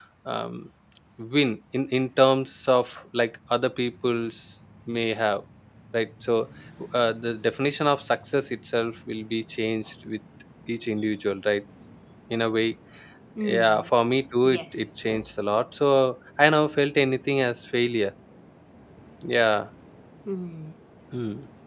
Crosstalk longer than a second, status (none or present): none